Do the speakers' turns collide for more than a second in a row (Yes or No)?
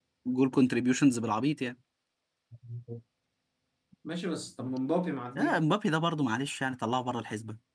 No